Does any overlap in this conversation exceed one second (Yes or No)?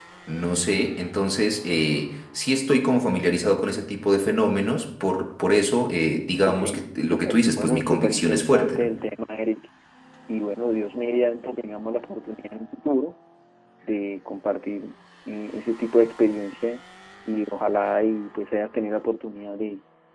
Yes